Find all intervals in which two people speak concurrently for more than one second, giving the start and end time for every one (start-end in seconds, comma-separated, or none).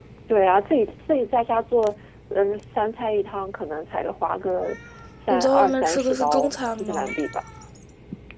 5.3-7.1